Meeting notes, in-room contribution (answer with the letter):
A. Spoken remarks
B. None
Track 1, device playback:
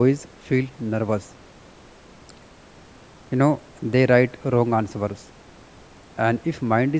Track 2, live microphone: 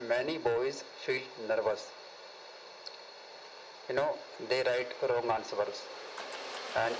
B